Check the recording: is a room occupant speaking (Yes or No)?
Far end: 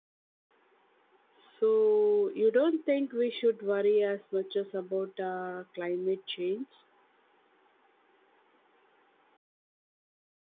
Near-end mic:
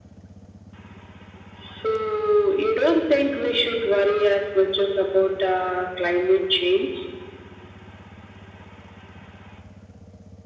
No